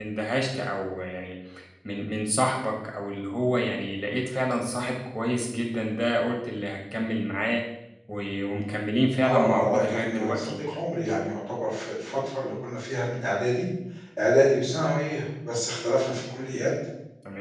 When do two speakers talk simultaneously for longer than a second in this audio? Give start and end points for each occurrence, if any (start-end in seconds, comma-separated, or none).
9.2-10.6